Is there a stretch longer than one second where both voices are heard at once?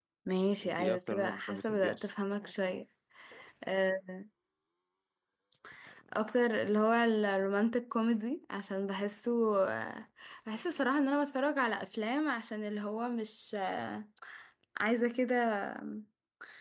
Yes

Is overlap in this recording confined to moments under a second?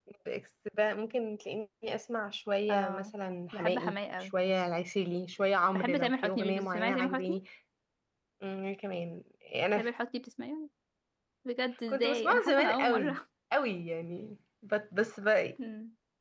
No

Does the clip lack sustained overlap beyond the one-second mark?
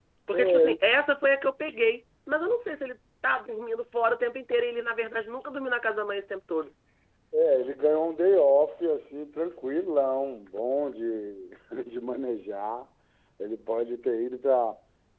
Yes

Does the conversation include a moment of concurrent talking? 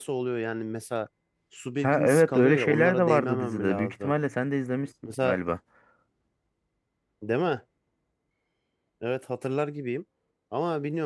Yes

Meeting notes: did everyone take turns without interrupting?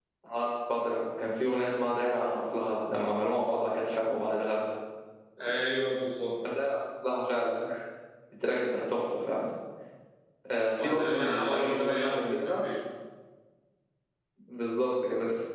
No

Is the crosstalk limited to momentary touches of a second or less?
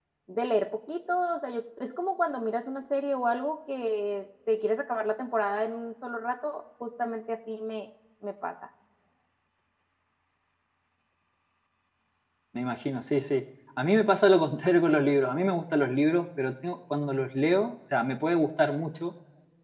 Yes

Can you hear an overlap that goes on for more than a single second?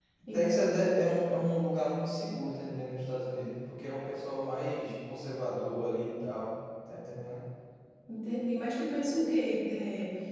No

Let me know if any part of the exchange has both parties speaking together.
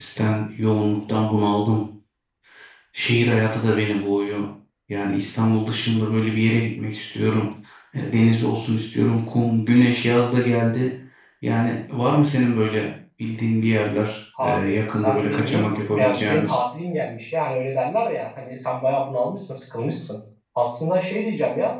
Yes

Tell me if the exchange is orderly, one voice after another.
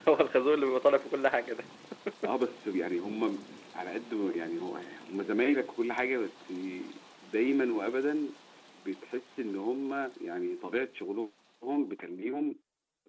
Yes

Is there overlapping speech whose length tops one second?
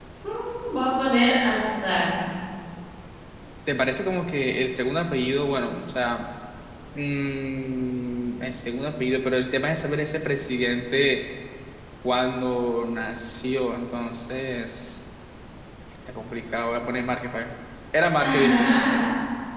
No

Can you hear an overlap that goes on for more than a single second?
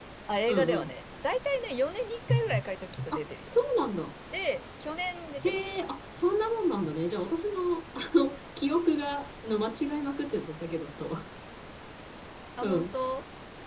No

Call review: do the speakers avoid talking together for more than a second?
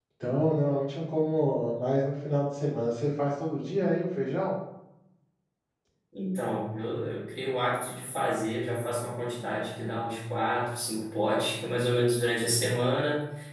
Yes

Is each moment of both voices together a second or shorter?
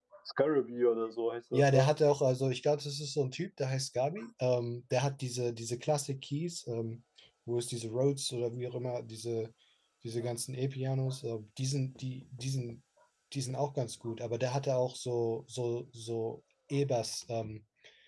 Yes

